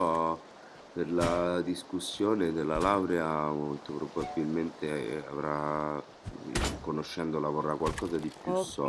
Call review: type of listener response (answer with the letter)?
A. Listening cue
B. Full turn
B